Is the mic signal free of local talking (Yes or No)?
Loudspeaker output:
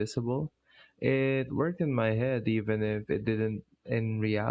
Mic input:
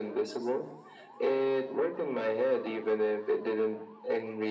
Yes